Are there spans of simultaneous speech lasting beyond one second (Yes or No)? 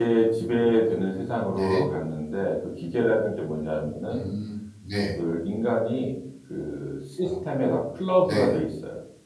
No